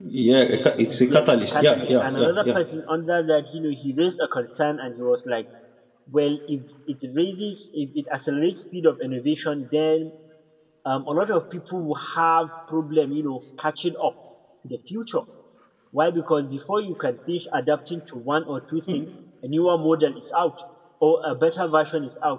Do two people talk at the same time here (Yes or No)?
Yes